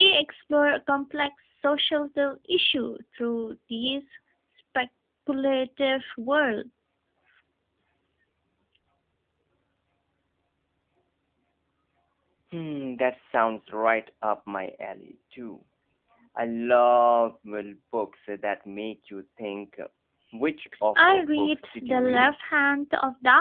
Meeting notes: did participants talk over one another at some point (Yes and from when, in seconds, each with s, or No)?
Yes, from 20.9 s